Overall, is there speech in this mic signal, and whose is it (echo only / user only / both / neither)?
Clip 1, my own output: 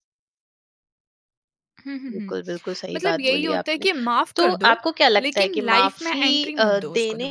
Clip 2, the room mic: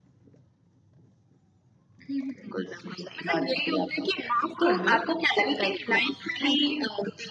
echo only